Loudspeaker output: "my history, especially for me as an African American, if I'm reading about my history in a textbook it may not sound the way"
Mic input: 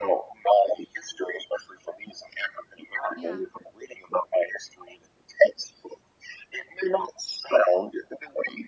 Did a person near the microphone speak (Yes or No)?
Yes